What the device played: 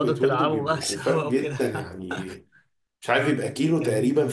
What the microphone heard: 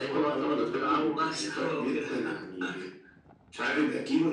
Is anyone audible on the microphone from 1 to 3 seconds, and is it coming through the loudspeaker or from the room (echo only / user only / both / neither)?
echo only